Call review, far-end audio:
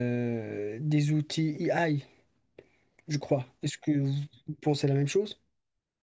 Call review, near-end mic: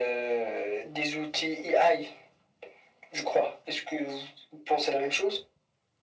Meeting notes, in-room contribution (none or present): none